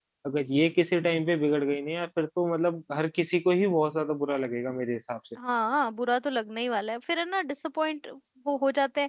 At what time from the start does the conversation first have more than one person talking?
none

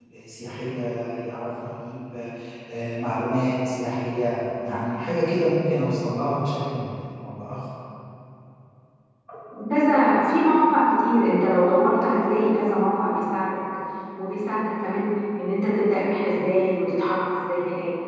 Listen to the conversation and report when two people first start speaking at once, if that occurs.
none

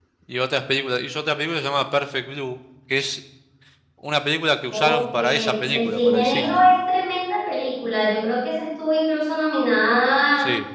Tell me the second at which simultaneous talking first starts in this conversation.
4.7 s

